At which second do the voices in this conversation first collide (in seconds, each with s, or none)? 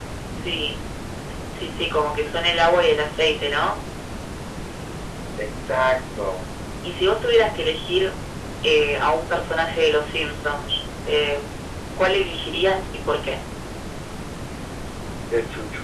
none